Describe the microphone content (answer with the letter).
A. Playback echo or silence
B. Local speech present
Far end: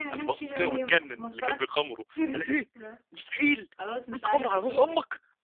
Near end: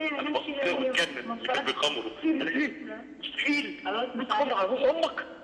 A